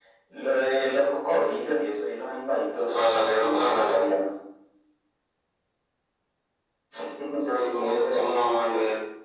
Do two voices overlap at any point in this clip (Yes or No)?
Yes